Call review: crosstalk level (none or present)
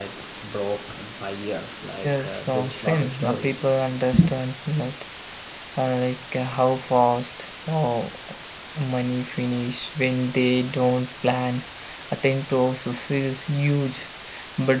present